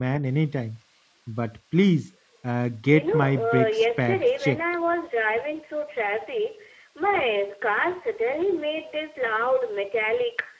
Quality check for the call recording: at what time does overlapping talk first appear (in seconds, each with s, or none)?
2.9 s